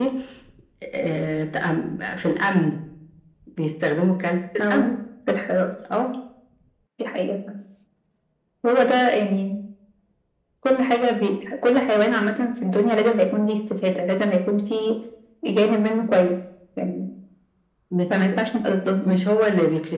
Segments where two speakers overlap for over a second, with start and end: none

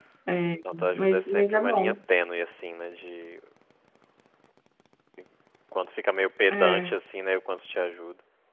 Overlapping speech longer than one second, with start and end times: 0.7-1.9

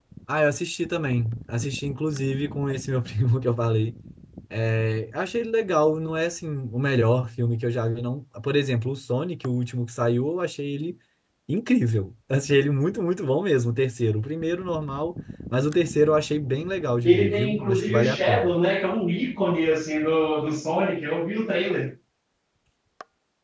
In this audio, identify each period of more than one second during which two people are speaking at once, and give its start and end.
17.0-18.6

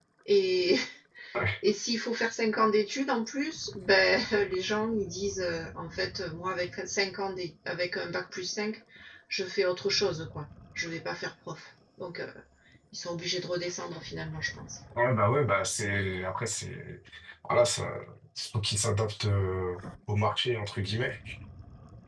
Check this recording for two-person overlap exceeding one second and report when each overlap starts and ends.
none

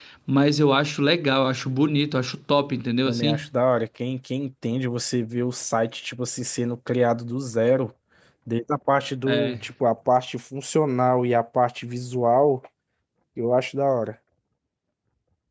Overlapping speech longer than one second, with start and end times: none

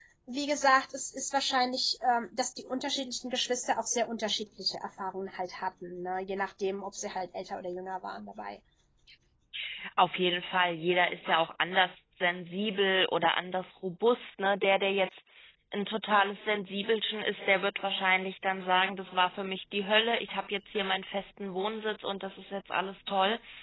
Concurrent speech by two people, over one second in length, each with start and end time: none

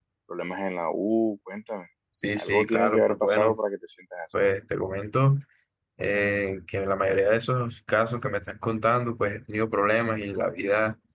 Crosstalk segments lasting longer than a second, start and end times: 2.4-3.6

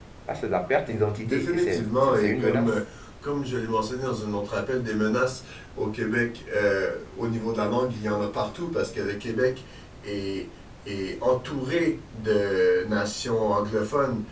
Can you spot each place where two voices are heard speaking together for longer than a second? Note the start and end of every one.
1.2-2.8

